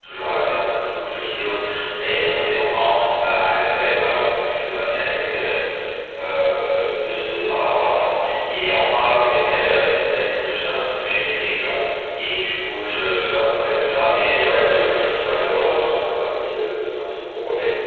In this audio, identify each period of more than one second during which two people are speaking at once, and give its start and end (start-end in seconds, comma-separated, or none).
14.4-15.7